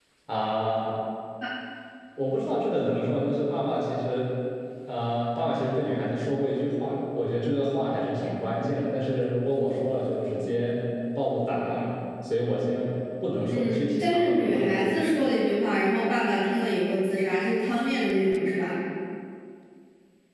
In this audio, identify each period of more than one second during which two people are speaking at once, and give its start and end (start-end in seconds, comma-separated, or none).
13.5-15.0